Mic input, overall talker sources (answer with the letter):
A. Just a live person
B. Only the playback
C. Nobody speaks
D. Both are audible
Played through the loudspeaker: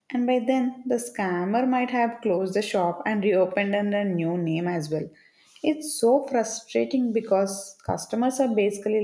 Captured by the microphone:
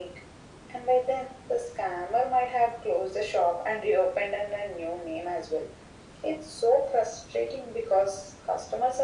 B